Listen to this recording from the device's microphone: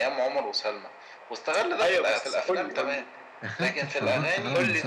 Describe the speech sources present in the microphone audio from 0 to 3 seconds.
echo only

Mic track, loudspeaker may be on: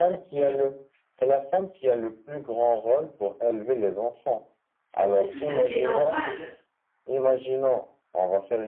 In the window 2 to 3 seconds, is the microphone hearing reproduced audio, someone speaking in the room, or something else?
echo only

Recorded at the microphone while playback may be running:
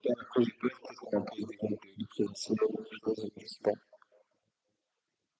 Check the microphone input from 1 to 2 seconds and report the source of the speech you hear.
echo only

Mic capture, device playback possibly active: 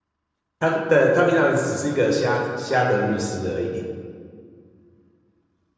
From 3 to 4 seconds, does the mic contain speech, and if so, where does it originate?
user only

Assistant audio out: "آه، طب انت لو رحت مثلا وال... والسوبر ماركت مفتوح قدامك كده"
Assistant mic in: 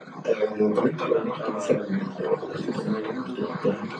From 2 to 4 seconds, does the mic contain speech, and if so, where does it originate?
both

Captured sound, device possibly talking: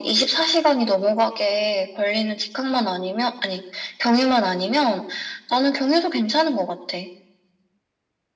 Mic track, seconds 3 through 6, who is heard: echo only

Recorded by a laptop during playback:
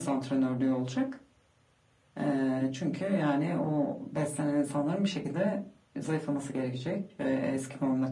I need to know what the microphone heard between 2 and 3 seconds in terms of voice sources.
echo only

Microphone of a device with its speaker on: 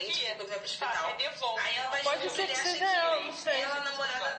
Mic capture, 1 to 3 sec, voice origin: both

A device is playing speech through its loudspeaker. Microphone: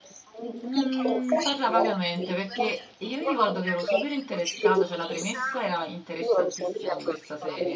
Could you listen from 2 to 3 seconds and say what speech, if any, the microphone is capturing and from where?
both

